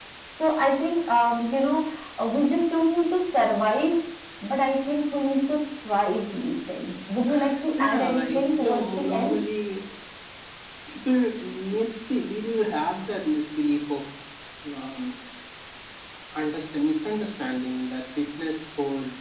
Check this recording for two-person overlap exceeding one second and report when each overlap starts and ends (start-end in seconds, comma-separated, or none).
7.8-9.3